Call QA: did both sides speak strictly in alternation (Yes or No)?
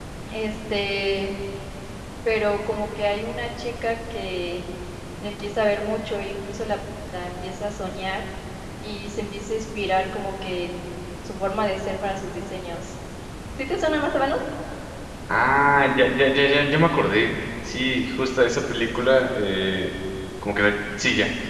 Yes